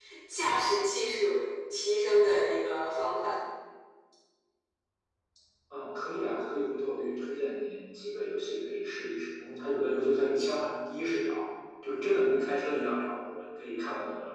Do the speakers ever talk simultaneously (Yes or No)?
No